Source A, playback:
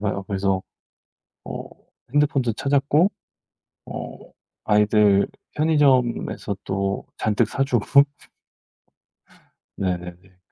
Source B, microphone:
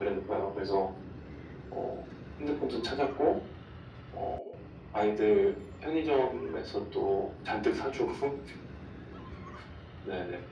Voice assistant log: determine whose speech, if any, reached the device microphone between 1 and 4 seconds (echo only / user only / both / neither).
echo only